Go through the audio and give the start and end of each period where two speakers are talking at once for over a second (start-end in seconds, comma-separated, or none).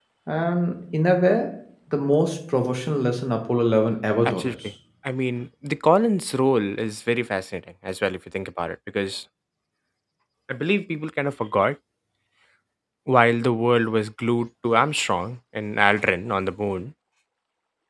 none